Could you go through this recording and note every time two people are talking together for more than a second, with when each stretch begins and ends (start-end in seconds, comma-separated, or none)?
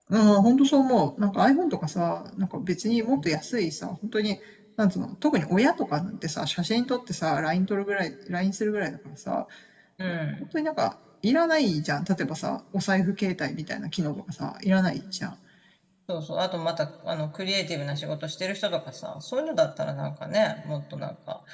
none